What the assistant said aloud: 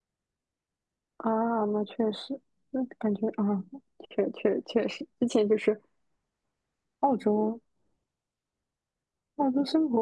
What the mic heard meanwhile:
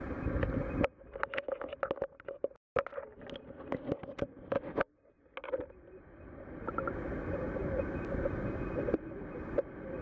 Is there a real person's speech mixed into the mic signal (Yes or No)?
No